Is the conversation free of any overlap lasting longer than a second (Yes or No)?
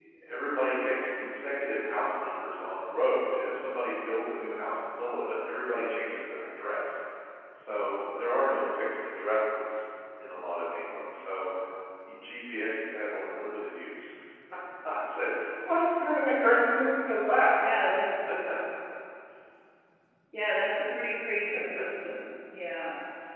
Yes